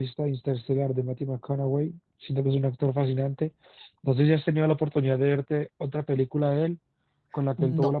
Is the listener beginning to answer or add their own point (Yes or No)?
No